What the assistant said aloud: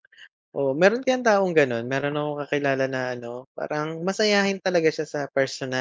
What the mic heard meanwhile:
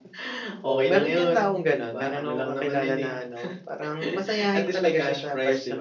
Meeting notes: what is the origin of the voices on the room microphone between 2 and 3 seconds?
both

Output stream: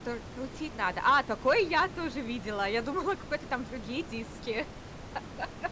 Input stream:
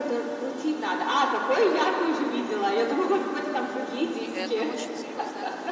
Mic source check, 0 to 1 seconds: echo only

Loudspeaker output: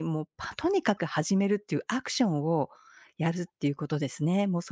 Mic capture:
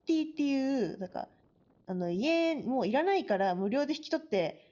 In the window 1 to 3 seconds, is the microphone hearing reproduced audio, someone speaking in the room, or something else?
user only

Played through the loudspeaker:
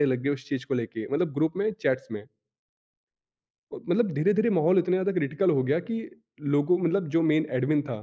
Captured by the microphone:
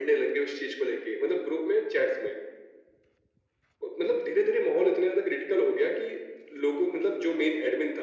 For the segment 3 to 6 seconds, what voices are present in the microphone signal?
echo only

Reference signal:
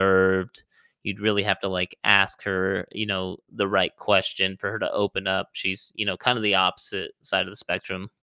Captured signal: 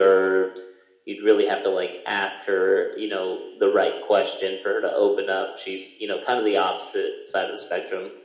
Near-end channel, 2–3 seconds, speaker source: echo only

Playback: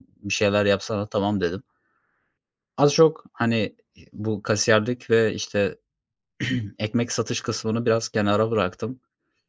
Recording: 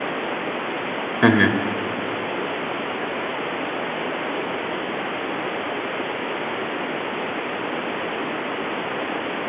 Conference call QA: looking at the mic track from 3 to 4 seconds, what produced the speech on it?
neither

